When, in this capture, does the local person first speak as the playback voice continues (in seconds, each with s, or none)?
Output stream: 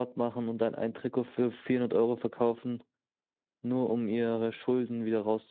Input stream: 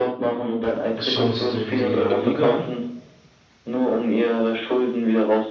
1.0 s